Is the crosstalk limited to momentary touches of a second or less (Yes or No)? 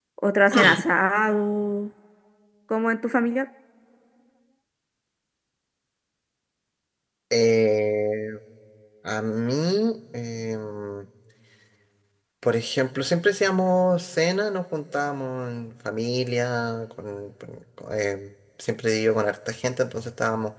Yes